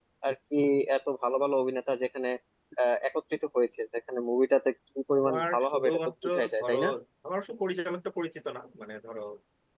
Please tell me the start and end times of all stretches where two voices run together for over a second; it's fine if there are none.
5.1-6.8

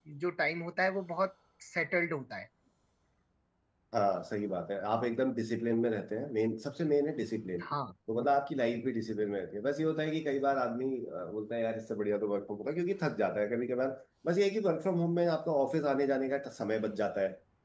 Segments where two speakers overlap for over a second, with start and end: none

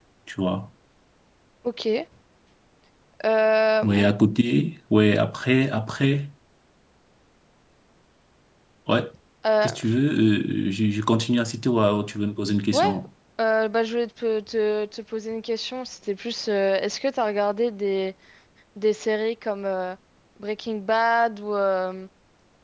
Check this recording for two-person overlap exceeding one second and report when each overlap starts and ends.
none

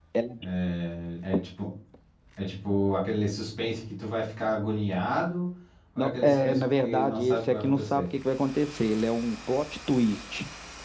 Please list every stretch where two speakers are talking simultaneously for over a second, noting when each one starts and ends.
6.0-8.0

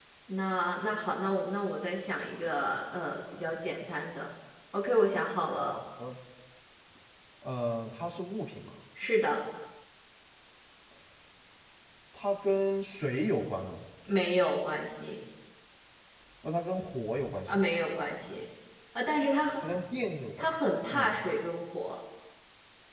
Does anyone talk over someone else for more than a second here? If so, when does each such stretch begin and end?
none

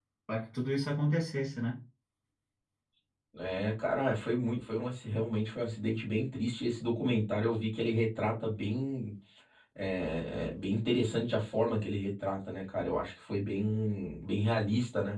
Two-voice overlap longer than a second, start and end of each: none

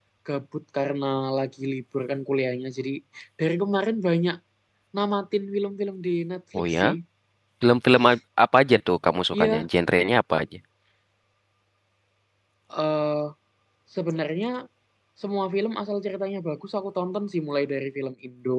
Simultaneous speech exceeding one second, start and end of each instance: none

